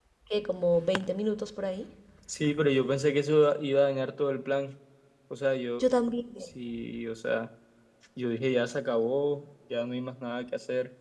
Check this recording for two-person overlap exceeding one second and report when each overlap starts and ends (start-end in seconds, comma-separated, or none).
none